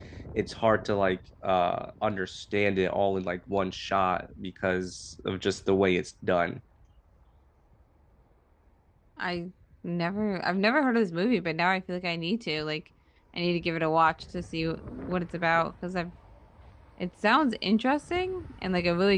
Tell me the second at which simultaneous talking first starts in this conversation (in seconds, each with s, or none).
none